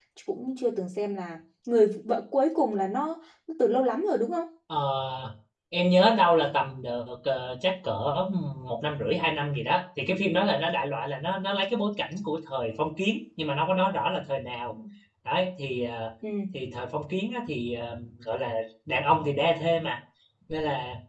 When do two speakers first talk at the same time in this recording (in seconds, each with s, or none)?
none